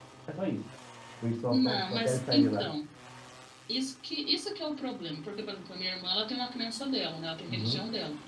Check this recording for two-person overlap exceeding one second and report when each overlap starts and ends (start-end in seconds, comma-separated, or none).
1.5-2.7